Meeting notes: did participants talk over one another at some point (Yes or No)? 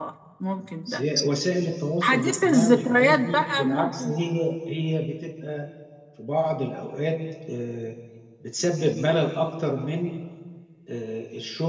Yes